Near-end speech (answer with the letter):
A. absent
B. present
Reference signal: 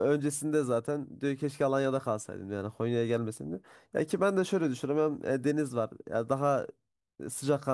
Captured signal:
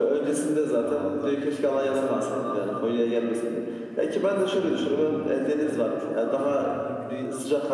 B